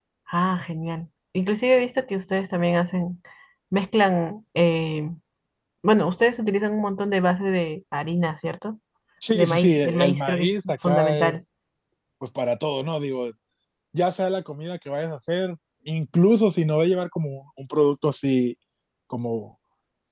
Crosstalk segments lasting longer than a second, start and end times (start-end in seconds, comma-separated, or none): 9.3-11.3